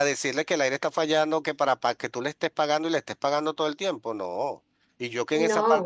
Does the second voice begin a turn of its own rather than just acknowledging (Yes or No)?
No